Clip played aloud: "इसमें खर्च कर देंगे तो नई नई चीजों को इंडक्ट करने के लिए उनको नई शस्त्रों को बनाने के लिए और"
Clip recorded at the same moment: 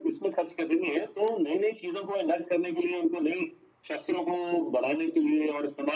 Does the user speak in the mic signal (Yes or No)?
No